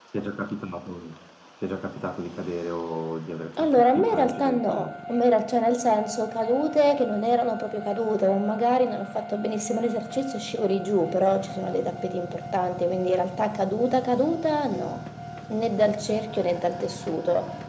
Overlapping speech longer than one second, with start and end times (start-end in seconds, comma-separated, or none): 3.6-4.9